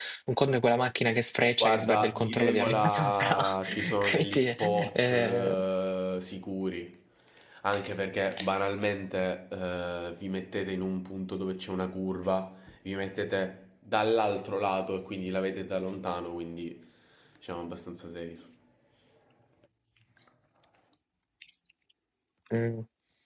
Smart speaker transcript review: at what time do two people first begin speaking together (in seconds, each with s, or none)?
1.6 s